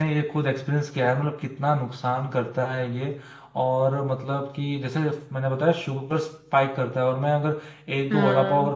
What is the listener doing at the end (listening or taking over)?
listening